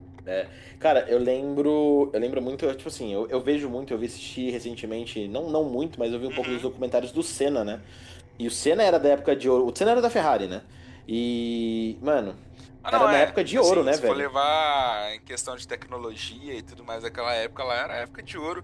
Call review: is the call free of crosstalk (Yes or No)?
No